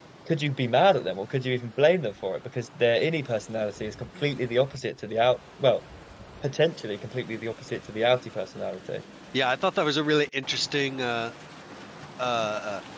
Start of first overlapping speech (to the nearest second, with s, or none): none